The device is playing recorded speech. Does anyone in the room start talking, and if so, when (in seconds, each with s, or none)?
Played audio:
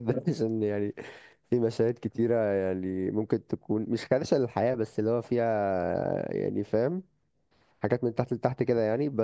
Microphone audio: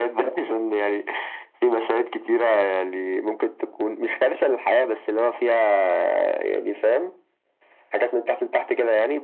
none